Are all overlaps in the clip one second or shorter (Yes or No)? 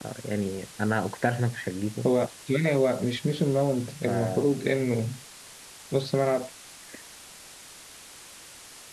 Yes